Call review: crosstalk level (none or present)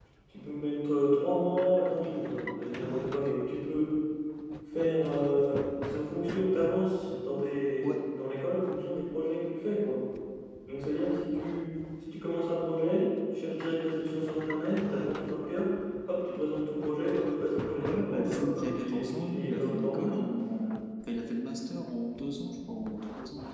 present